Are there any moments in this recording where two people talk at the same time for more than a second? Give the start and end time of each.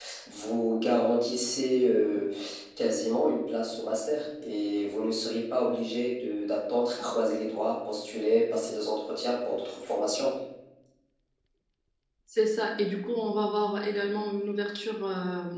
none

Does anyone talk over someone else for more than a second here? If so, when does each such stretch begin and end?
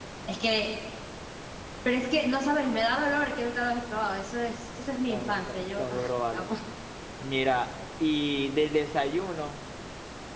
5.1-6.5

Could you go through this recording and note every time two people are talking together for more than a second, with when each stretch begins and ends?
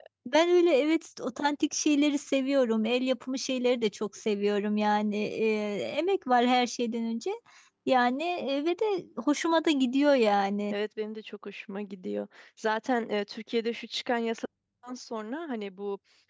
none

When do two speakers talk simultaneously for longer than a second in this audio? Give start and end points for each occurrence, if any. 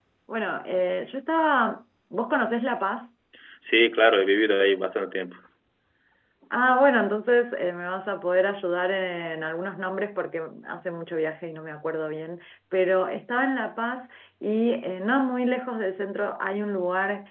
none

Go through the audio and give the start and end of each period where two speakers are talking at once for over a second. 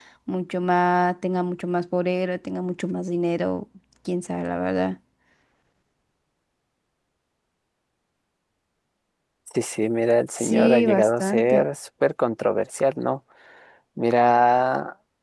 10.3-11.6

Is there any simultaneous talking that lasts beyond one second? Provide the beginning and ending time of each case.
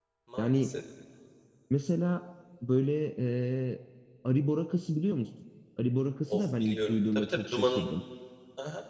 6.3-7.8

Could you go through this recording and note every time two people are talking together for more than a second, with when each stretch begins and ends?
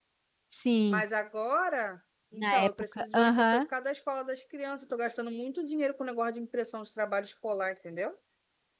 2.4-3.6

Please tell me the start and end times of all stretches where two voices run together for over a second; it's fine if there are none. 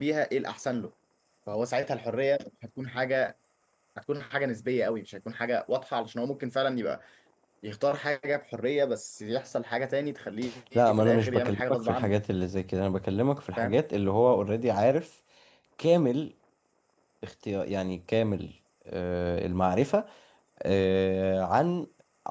10.7-12.1

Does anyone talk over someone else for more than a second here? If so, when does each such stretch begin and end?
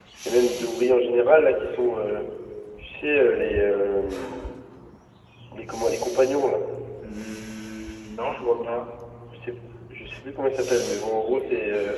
none

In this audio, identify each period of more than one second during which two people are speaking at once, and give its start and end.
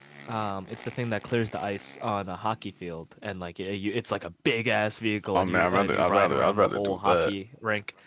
5.3-7.3

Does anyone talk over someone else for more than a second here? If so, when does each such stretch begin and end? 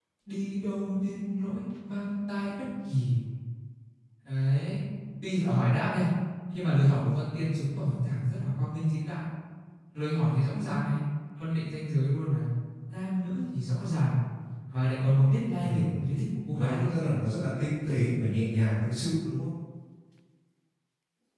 none

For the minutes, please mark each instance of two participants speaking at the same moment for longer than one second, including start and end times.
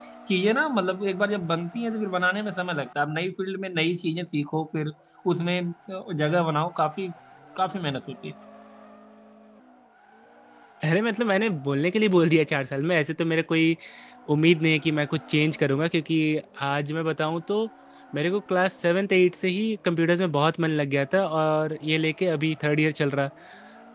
none

